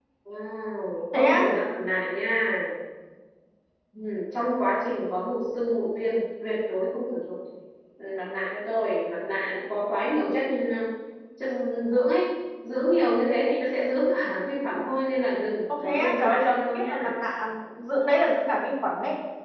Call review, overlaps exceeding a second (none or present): present